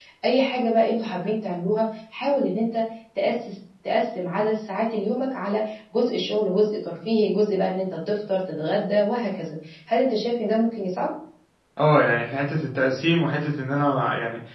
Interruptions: none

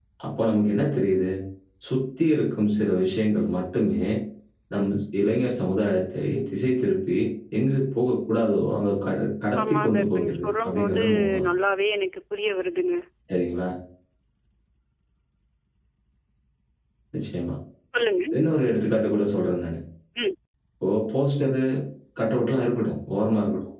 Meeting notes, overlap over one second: present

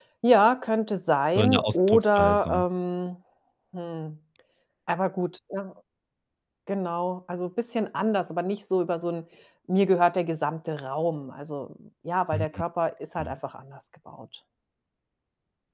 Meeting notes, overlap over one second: present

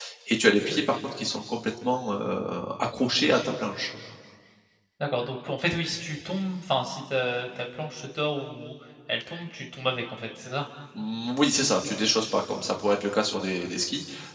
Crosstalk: none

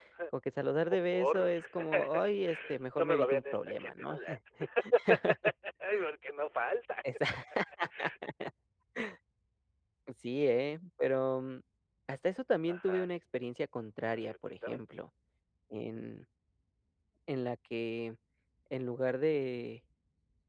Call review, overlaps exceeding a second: present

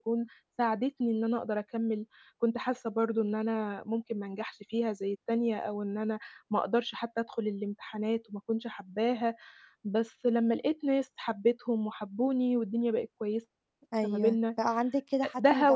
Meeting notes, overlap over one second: none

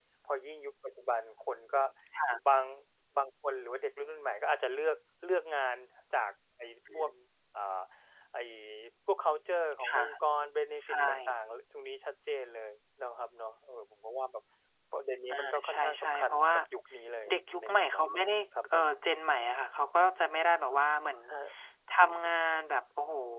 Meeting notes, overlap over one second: present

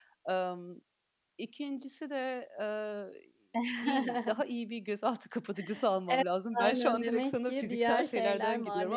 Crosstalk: present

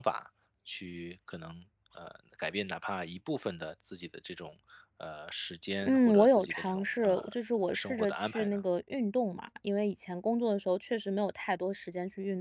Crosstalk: present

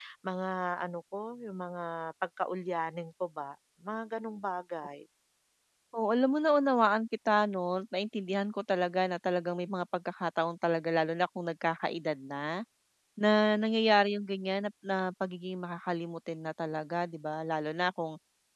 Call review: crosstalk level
none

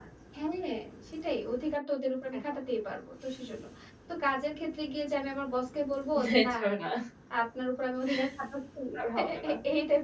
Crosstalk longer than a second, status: none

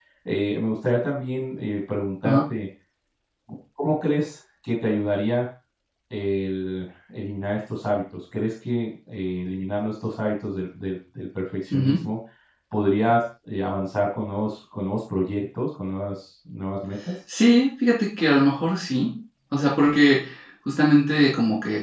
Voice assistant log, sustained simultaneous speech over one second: none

